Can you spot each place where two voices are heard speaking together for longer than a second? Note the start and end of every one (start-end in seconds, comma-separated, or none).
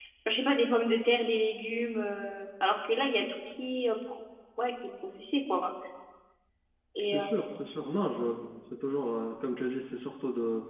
none